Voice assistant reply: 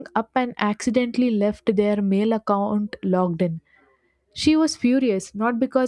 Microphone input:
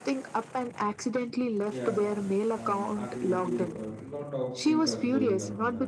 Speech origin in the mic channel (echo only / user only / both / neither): both